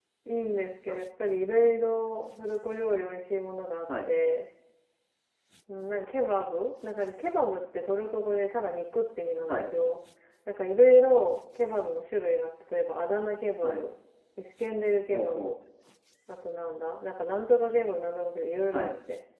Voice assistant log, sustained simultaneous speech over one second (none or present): none